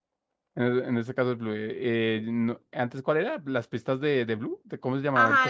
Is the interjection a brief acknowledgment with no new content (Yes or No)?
No